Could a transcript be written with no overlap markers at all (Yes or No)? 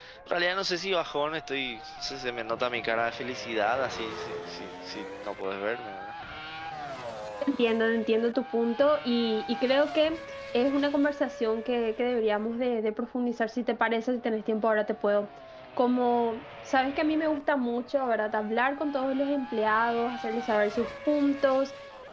Yes